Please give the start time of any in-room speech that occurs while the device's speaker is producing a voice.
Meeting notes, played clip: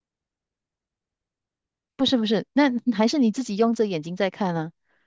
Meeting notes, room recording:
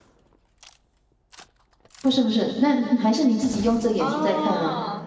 4 s

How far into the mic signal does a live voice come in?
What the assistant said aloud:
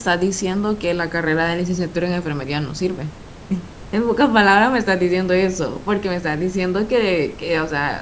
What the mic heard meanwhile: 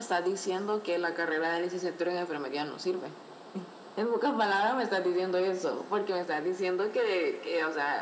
none

